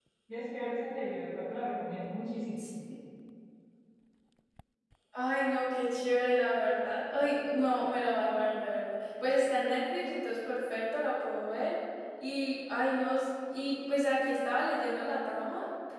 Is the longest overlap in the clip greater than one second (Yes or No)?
No